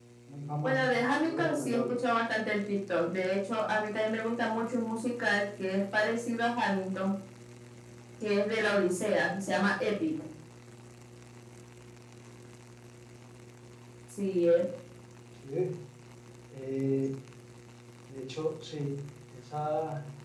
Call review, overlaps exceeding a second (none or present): present